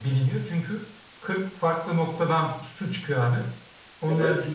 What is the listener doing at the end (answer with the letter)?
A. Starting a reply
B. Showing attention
B